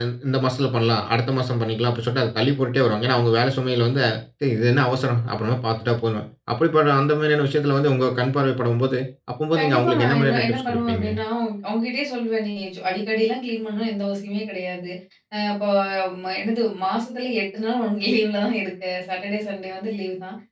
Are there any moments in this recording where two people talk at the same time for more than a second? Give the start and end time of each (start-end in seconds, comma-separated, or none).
9.6-11.1